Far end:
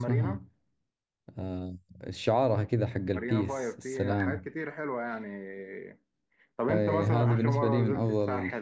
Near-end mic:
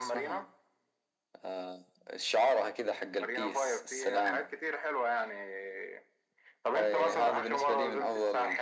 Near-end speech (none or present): none